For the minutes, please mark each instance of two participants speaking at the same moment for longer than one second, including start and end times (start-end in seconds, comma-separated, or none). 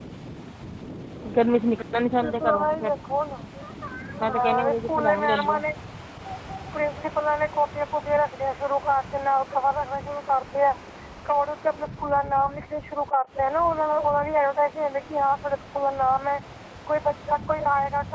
4.3-5.6